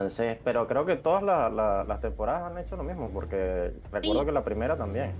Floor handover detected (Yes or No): No